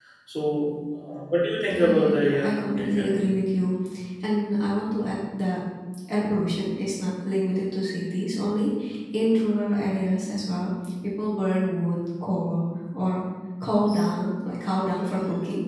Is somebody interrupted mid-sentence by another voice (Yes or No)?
Yes